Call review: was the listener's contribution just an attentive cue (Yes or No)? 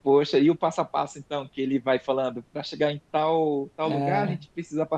Yes